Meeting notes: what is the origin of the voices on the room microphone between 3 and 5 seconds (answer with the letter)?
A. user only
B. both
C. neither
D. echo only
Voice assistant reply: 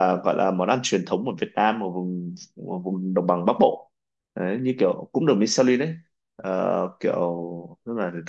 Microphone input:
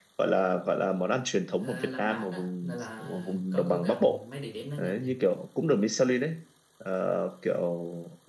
B